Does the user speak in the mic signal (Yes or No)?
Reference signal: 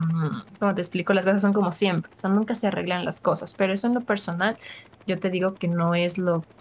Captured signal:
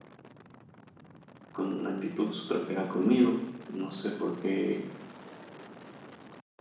Yes